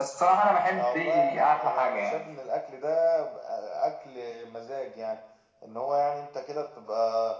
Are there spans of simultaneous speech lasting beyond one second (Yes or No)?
Yes